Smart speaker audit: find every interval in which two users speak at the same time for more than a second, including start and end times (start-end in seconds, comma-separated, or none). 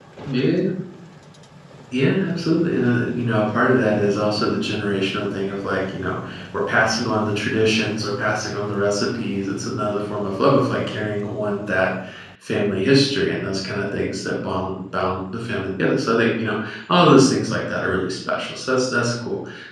none